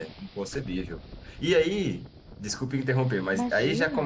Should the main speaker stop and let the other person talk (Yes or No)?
No